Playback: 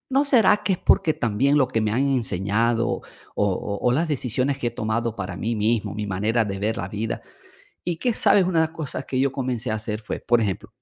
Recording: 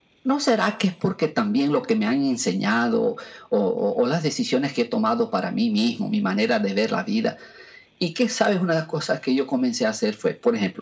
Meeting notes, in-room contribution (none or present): none